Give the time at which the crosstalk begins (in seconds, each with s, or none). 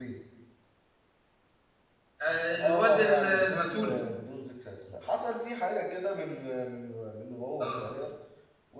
2.5 s